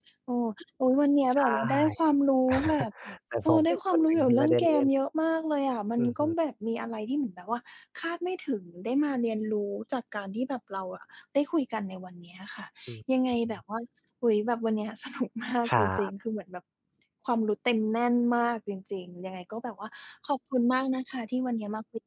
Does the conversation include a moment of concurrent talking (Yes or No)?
Yes